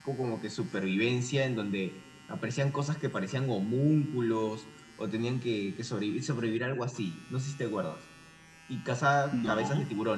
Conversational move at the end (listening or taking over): listening